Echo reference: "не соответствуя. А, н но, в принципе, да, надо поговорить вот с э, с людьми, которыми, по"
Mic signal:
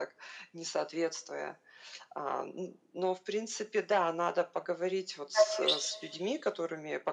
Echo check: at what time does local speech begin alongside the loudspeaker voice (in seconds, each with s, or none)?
5.3 s